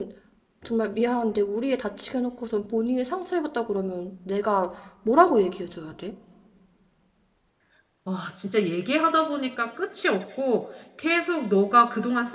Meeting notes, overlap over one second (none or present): none